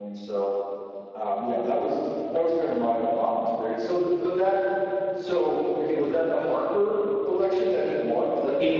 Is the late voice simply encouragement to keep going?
No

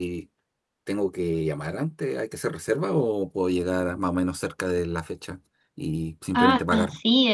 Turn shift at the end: Yes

